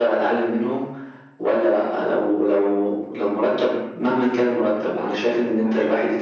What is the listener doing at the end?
listening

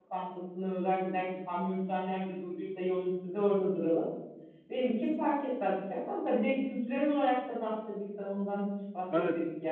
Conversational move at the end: taking over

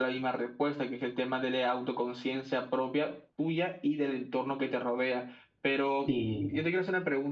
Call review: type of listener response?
listening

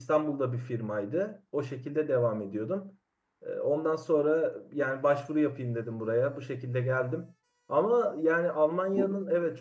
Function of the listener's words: listening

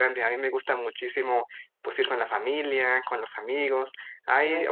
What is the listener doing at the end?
listening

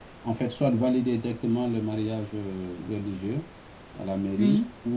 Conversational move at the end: listening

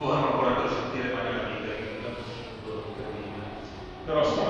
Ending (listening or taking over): listening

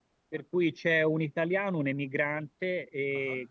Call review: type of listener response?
listening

